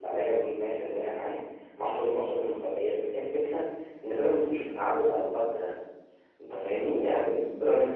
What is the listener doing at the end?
listening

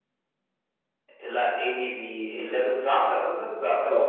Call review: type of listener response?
taking over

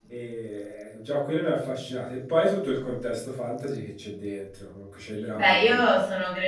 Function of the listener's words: taking over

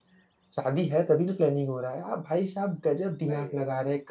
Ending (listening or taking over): listening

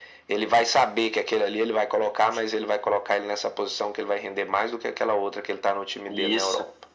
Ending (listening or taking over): taking over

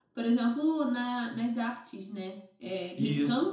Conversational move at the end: listening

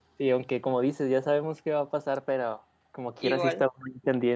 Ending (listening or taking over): listening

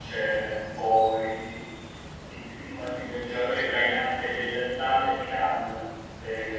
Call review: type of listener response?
listening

